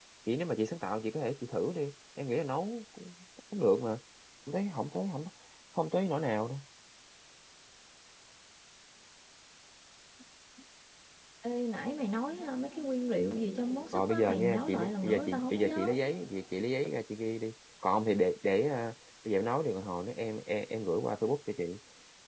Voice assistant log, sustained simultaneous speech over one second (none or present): present